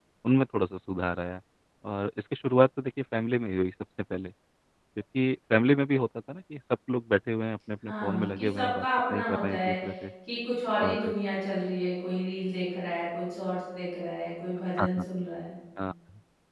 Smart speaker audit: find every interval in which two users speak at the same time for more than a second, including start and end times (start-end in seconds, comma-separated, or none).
7.8-9.8